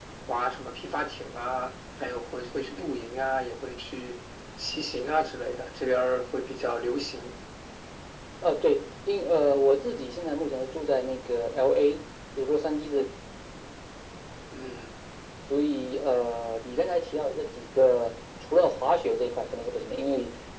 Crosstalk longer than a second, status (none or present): none